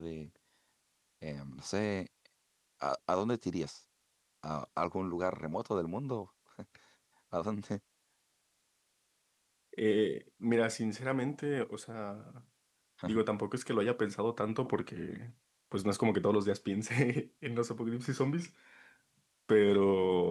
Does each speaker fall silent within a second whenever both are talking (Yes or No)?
Yes